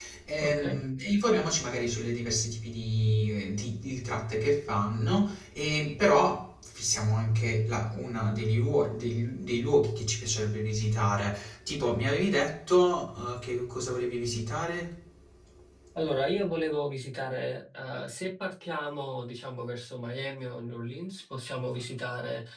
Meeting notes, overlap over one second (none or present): none